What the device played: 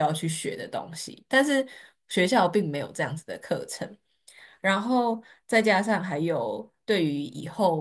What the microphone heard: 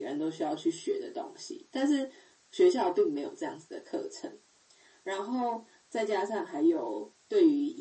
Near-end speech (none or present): none